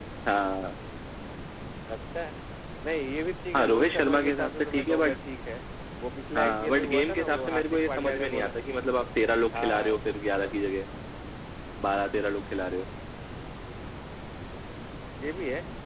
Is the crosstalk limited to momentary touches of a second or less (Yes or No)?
No